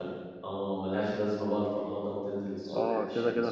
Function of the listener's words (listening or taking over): taking over